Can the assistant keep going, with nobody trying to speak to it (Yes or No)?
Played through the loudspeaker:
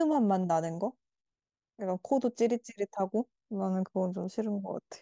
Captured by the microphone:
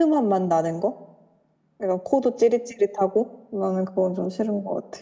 Yes